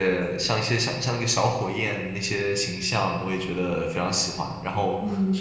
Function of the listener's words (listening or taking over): listening